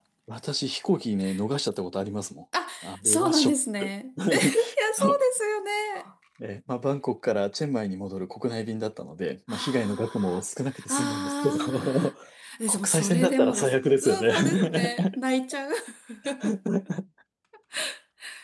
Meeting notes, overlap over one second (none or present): present